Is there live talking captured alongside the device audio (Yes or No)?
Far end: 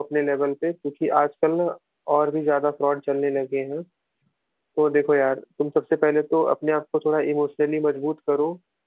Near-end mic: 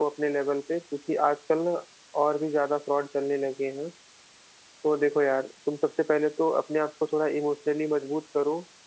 No